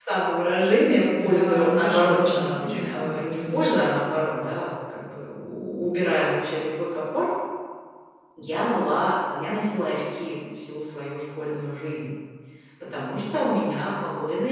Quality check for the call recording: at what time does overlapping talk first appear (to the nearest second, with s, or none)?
1 s